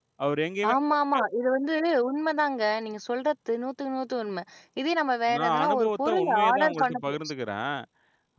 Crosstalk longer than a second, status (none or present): present